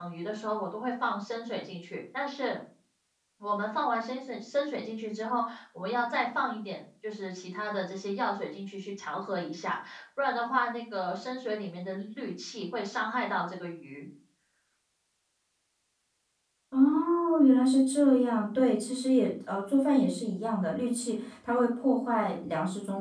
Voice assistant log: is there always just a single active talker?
Yes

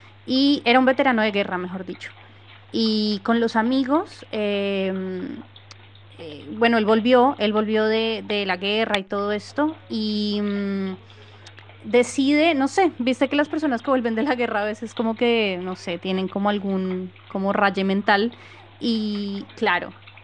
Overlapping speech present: No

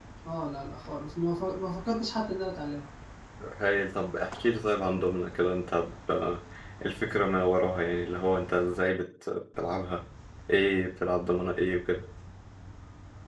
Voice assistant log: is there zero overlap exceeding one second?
Yes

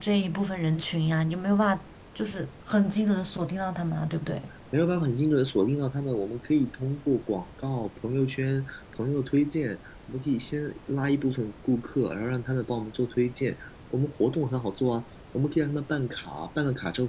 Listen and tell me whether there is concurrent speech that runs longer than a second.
No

